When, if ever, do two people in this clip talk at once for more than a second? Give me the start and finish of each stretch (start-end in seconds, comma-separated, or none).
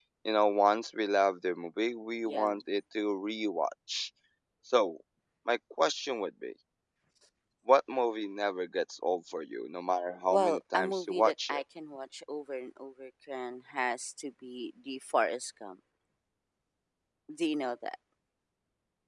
10.3-11.6